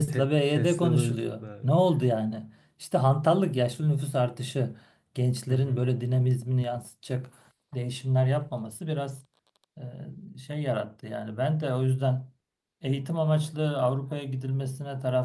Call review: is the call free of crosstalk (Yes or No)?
No